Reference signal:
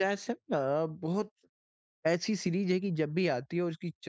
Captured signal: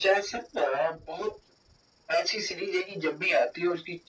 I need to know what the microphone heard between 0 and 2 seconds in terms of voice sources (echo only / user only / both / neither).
echo only